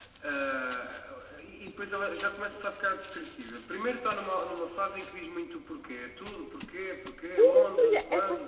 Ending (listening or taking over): taking over